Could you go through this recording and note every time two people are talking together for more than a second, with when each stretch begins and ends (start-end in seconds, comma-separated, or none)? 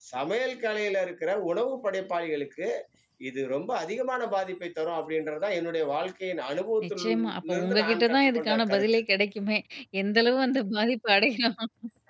6.8-8.9